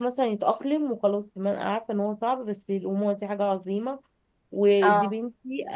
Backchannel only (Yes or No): Yes